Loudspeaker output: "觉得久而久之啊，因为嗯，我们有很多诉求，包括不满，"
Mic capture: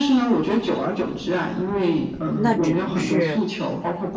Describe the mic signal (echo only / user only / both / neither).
both